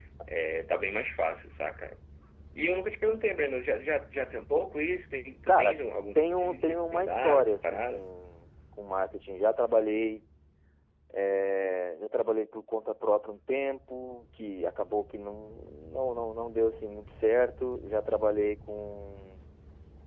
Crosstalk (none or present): present